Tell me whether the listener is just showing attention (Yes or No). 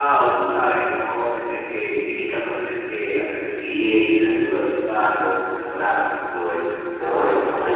No